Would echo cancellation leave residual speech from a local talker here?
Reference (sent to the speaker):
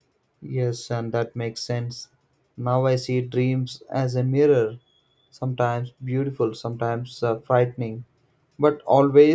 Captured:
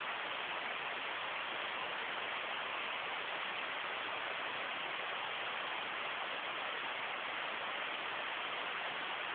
No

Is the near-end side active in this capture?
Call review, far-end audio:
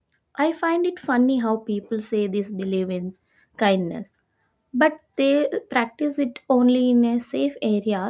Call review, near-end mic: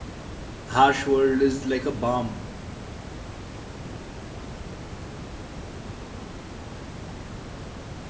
Yes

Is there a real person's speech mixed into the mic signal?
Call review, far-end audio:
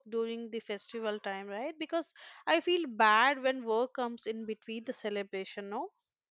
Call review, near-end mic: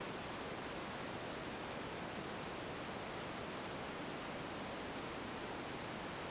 No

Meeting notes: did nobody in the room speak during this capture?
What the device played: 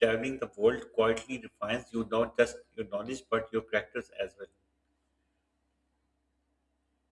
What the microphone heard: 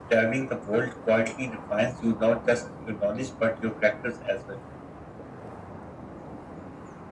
Yes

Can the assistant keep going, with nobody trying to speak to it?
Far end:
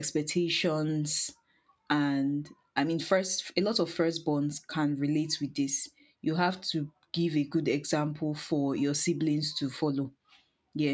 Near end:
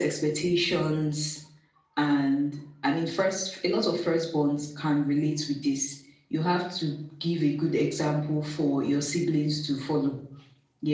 Yes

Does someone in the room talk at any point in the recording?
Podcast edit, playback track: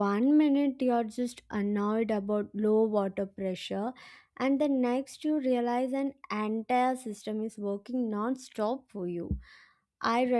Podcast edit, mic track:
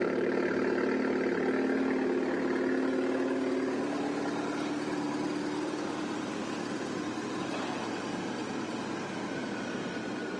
No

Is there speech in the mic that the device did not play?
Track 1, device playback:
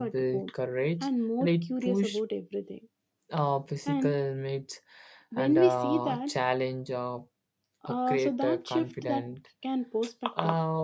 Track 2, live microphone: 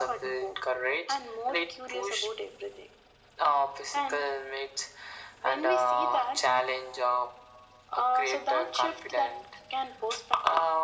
No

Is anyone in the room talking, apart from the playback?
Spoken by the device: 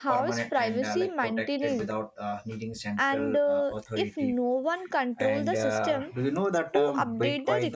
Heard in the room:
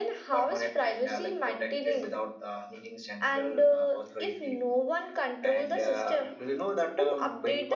No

